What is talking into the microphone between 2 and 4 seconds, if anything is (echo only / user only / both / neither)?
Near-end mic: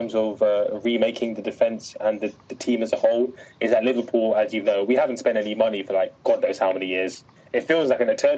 echo only